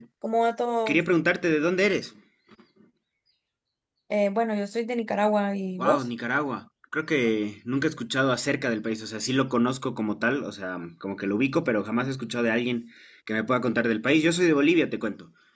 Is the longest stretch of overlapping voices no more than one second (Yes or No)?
Yes